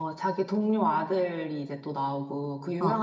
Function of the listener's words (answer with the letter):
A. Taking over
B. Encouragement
B